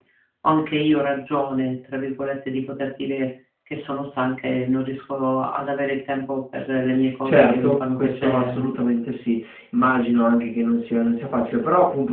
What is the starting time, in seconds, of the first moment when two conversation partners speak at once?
7.2 s

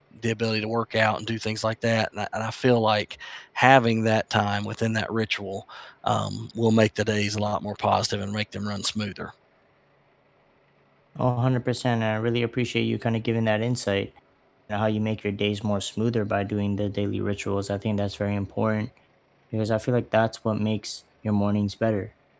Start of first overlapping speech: none

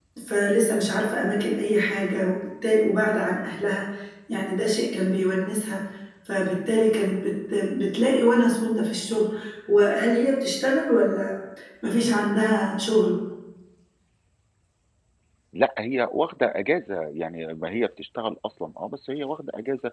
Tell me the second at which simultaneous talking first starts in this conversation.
none

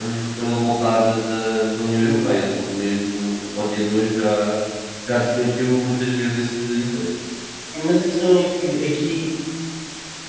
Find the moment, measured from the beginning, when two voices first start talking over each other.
none

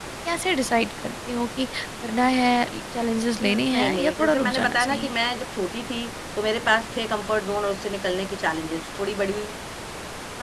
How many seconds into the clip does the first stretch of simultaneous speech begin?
3.4 s

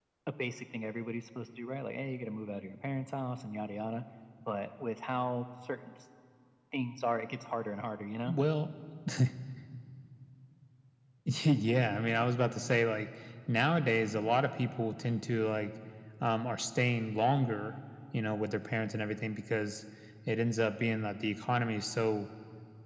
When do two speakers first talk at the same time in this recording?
none

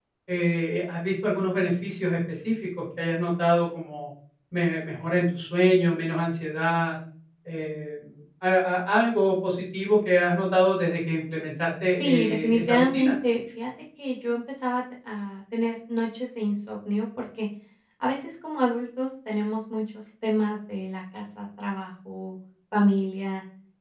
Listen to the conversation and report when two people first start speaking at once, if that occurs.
11.9 s

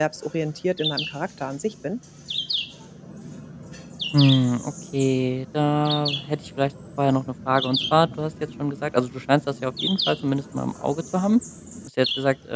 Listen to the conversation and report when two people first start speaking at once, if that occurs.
none

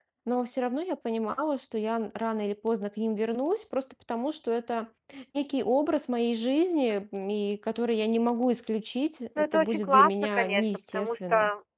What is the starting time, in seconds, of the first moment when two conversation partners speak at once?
9.3 s

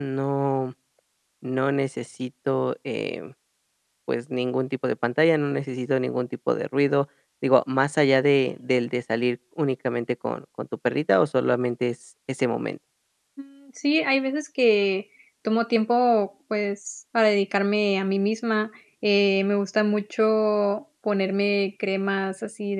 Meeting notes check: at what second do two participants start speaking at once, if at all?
none

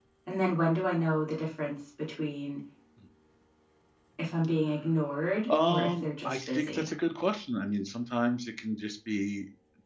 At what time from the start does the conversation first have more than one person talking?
5.2 s

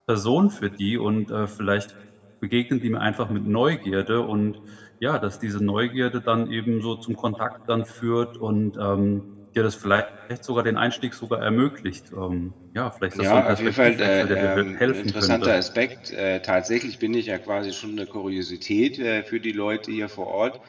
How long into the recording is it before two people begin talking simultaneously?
13.1 s

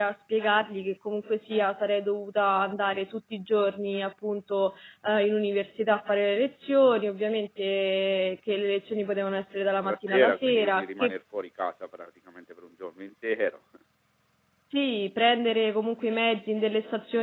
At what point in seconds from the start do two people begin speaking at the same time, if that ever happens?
9.8 s

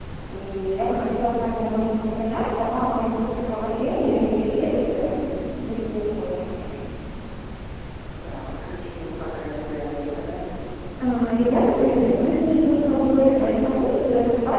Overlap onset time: none

